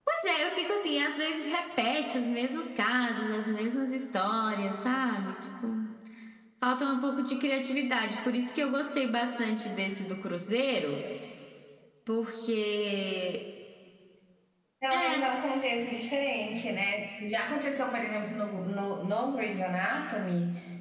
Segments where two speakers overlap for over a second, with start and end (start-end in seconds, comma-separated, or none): none